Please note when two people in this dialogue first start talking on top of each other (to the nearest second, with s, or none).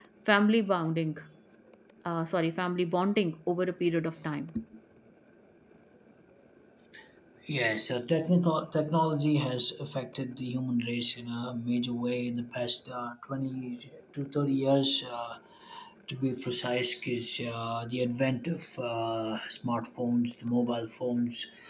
none